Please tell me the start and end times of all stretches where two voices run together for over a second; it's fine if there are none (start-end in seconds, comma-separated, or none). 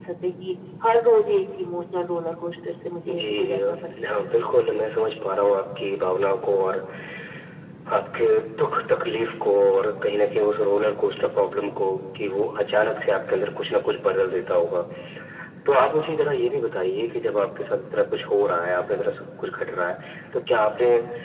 3.1-4.3